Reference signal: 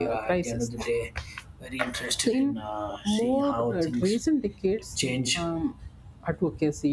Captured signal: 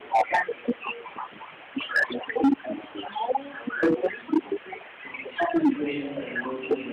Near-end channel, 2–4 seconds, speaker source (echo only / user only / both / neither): echo only